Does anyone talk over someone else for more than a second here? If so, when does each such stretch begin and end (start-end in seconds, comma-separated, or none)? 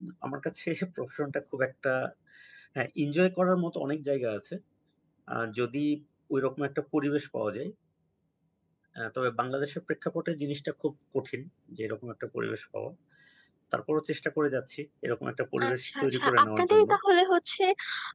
15.7-16.9